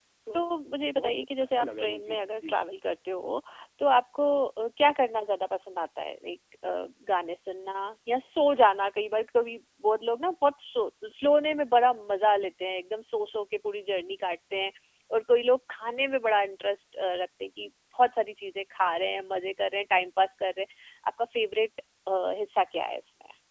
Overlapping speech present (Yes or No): Yes